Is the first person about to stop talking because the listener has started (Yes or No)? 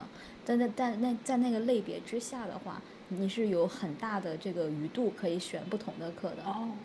No